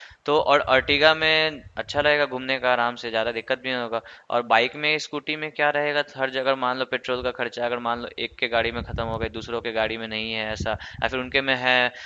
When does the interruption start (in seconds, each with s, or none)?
none